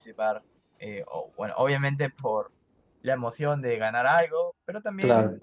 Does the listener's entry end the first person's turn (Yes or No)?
No